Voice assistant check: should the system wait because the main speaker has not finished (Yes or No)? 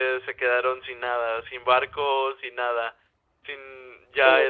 No